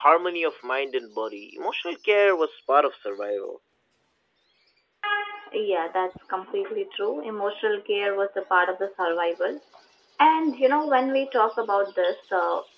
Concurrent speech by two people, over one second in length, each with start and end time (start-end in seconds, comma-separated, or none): none